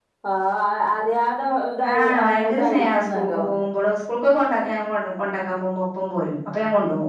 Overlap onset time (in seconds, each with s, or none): 1.8 s